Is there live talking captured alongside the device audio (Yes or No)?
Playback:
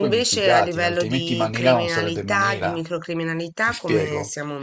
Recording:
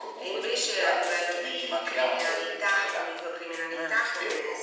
Yes